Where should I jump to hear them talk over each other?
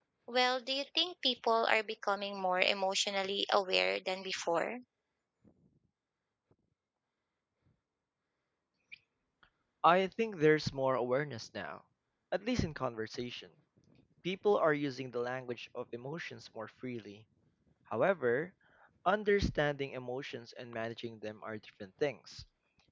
none

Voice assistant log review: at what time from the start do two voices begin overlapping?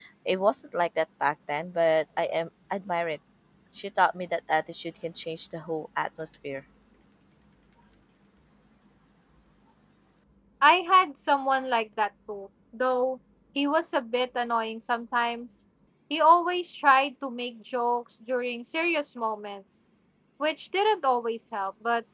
none

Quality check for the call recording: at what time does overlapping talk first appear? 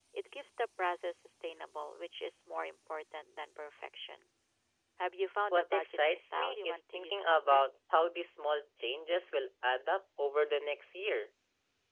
5.5 s

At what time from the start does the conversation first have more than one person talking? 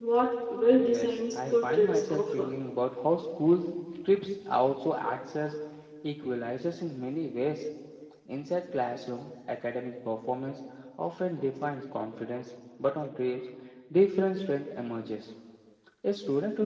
0.8 s

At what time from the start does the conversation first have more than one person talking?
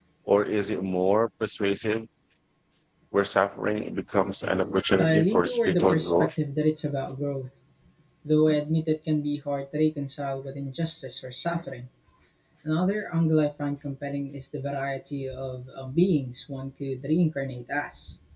4.8 s

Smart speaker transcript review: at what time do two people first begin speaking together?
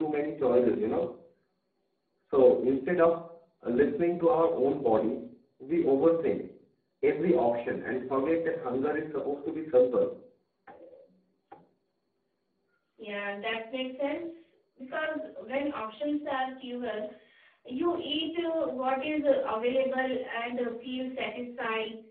none

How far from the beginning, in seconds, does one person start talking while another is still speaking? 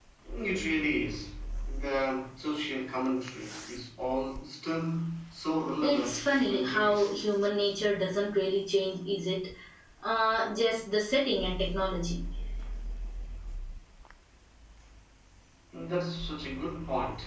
5.8 s

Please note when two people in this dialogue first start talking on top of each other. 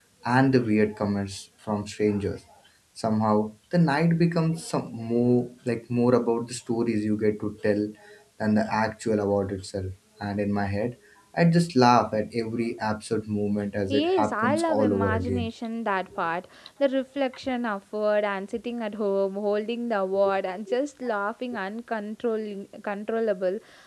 13.9 s

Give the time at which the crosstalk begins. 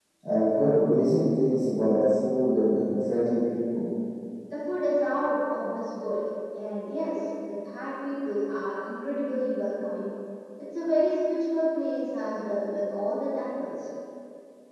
none

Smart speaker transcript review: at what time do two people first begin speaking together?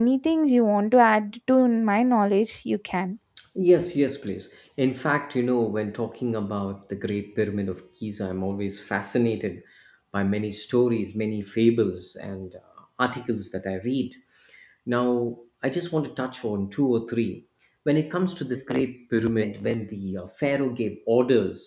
none

